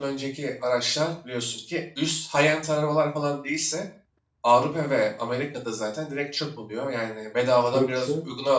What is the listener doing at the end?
taking over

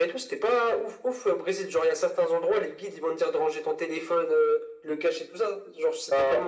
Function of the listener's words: taking over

